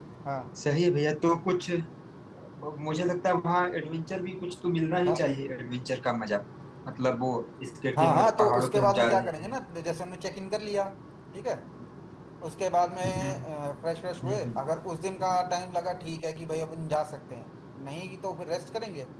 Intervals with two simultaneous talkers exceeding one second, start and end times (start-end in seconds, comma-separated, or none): 8.0-9.6